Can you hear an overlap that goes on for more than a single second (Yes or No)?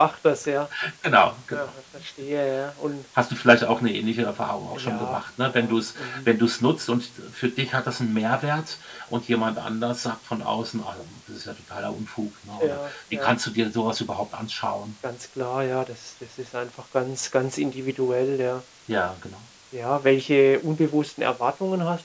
Yes